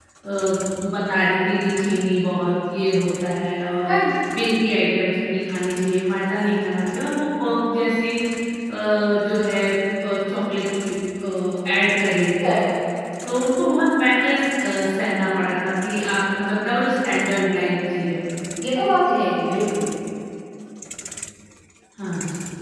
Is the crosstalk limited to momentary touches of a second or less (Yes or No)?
Yes